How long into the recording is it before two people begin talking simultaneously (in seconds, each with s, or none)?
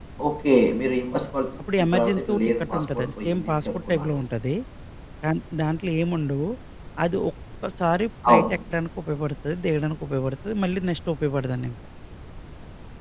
1.6 s